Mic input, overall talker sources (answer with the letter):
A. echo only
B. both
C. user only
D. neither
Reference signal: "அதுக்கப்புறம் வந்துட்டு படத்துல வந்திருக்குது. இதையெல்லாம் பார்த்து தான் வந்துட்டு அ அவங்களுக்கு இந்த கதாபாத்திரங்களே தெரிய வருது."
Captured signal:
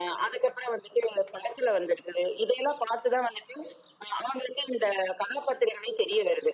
A